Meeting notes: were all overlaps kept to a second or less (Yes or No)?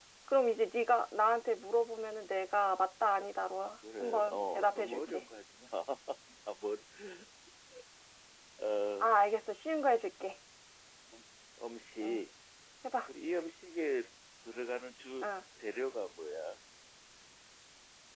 No